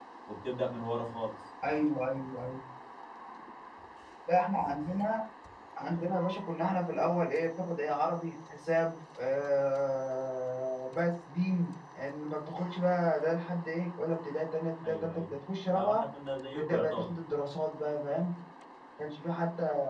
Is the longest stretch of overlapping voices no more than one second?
Yes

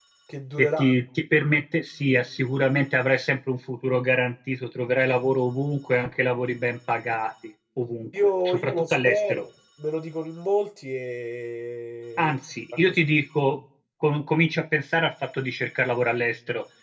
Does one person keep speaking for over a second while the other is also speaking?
Yes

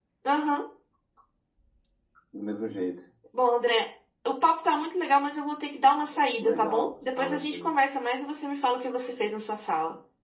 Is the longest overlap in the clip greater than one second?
Yes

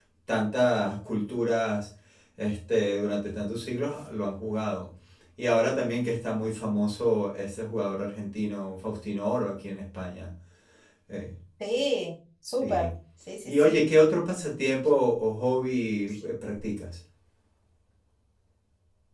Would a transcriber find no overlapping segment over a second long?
Yes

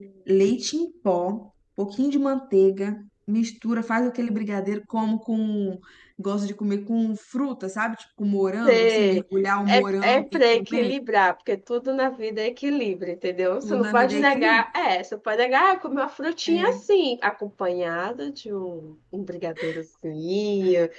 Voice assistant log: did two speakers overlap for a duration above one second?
Yes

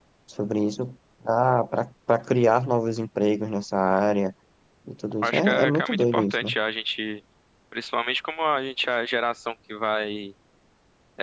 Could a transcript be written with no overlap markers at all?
No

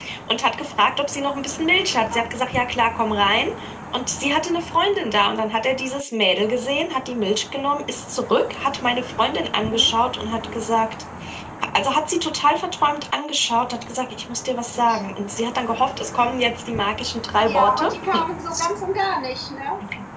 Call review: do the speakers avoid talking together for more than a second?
Yes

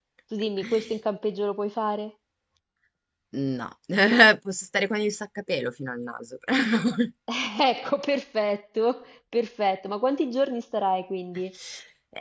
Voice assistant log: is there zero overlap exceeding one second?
Yes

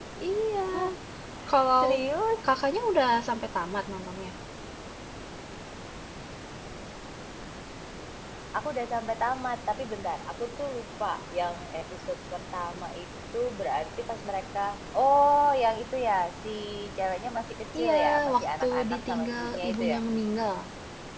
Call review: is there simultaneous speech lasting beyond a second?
Yes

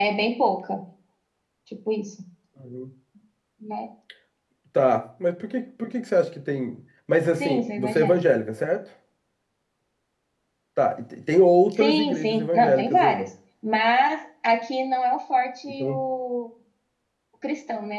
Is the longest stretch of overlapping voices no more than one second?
No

